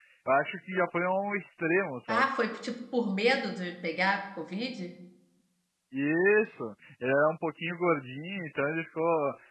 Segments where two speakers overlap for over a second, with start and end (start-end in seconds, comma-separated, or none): none